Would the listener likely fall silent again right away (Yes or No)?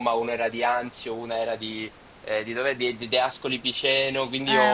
Yes